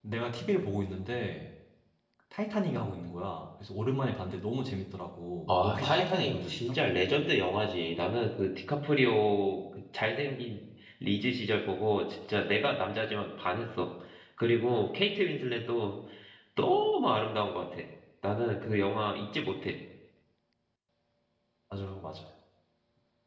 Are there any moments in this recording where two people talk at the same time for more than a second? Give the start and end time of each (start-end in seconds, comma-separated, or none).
5.5-6.8